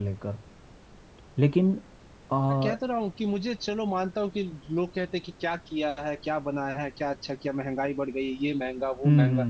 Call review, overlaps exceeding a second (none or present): none